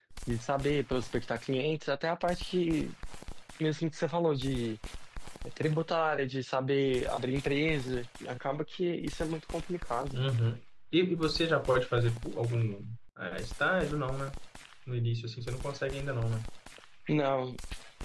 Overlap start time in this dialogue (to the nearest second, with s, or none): none